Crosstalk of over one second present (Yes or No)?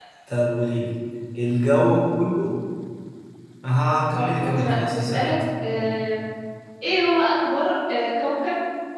Yes